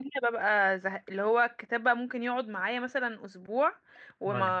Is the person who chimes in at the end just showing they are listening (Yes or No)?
Yes